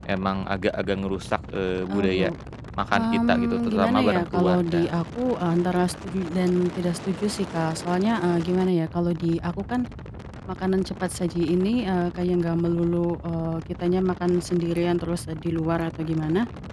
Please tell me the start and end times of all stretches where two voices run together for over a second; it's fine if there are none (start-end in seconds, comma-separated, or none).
2.9-4.9